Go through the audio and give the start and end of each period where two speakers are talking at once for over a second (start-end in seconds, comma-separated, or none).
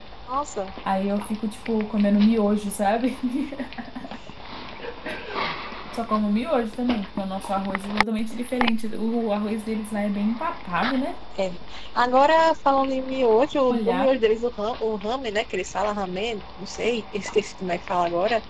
none